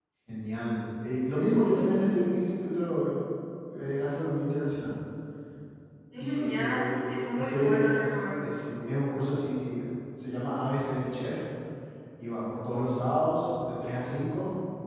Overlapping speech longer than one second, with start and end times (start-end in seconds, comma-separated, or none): 6.2-8.1